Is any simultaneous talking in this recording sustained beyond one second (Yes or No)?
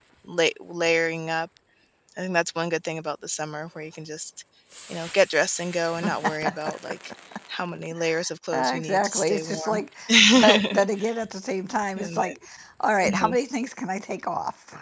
Yes